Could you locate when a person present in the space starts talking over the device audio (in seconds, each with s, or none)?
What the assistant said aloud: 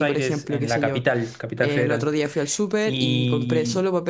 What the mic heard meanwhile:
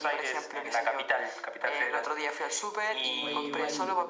3.2 s